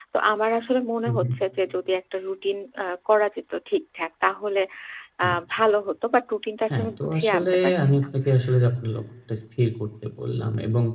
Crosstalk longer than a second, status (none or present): present